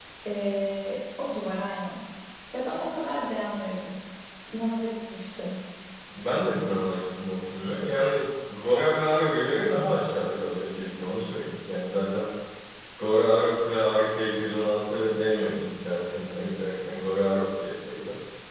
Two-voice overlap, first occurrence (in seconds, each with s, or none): none